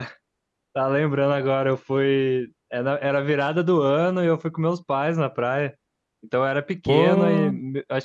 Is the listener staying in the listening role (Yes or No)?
Yes